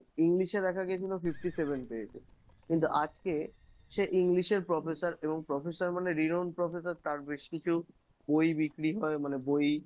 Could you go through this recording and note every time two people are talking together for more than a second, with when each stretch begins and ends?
none

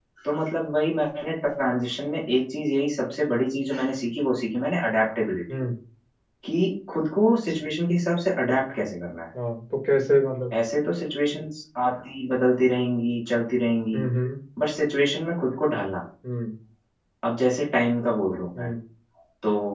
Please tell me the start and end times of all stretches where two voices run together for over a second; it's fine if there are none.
none

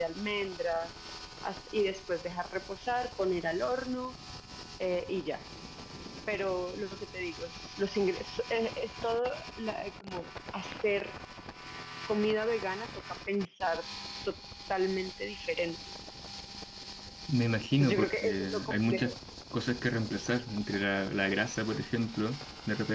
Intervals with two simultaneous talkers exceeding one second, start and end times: 17.7-19.1

